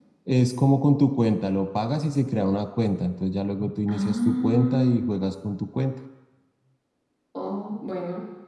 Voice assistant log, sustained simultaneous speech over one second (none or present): present